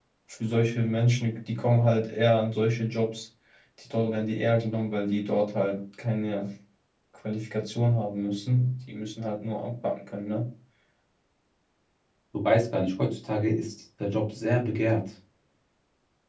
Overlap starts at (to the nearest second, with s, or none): none